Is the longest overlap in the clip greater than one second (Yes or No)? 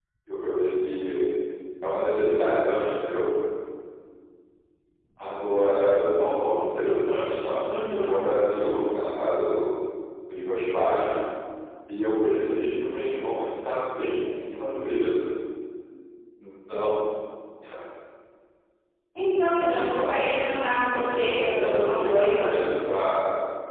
Yes